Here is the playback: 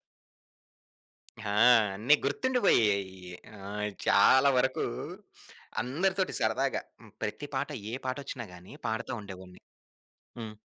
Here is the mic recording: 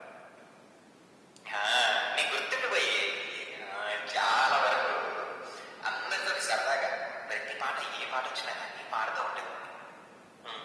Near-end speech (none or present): none